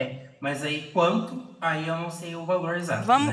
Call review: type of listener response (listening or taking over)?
taking over